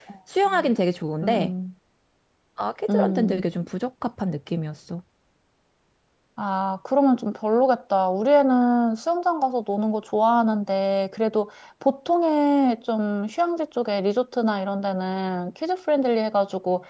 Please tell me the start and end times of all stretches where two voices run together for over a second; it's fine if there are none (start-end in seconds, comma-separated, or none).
none